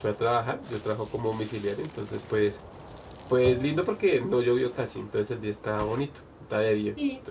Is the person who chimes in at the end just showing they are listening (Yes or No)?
Yes